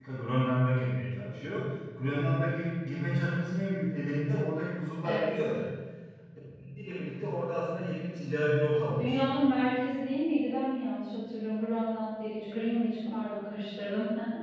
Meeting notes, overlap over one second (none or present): none